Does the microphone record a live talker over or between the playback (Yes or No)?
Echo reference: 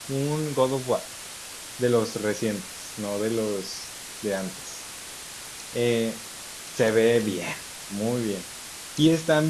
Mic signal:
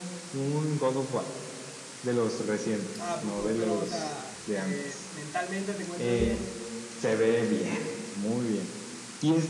Yes